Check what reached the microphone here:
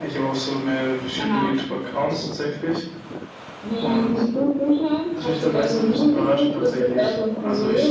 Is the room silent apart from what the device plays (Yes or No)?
Yes